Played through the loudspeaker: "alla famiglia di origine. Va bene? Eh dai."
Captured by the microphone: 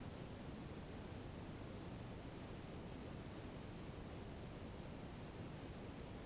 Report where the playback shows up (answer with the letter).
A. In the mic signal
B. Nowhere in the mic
B